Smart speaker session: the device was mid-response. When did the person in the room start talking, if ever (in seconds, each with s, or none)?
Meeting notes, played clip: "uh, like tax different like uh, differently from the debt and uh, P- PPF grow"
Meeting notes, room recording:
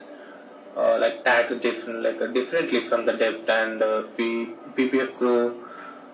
none